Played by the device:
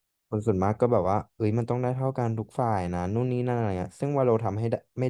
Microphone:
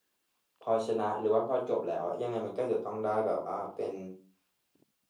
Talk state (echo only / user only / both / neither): user only